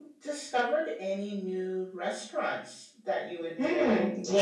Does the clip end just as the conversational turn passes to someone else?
Yes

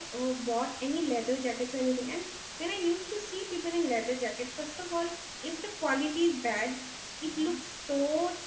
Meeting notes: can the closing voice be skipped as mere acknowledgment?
Yes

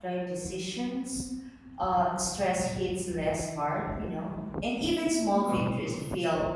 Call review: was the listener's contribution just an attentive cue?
Yes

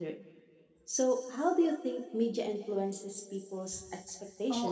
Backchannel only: No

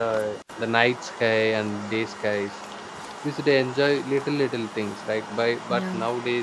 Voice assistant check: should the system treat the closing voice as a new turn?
No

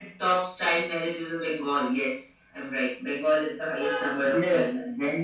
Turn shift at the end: Yes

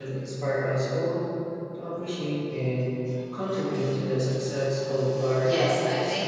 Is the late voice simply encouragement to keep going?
No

